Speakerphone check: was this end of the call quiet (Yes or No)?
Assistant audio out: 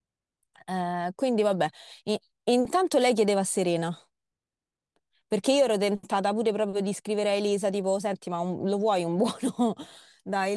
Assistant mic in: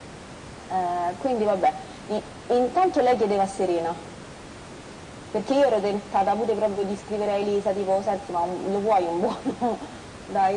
Yes